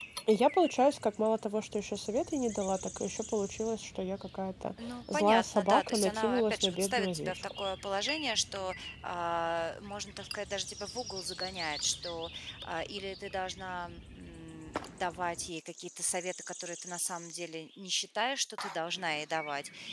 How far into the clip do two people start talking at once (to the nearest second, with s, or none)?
5 s